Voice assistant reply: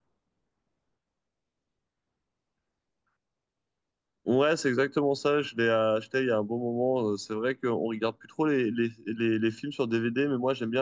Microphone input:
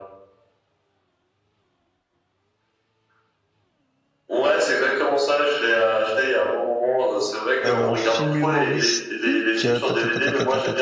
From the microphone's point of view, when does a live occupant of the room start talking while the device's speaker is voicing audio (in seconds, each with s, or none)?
7.7 s